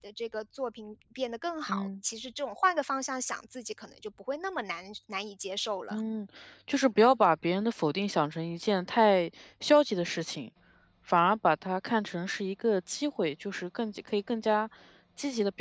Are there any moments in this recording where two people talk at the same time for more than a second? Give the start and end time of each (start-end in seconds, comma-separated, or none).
none